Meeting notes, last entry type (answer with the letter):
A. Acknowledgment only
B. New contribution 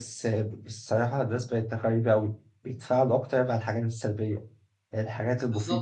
A